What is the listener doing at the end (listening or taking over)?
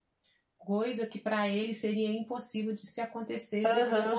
taking over